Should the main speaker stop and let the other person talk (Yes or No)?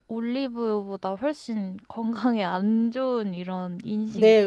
Yes